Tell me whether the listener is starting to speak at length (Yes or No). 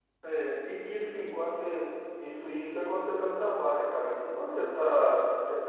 No